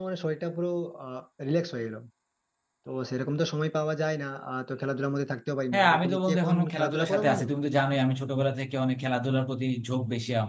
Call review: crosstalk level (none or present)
present